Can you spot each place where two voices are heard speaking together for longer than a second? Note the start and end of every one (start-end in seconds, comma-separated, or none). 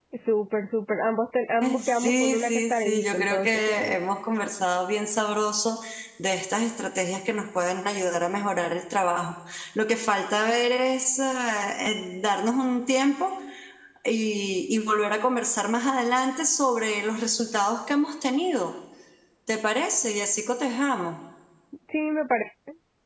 1.6-4.0